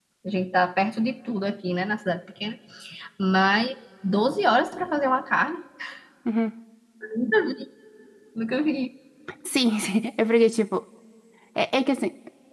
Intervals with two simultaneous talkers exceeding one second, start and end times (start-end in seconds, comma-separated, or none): none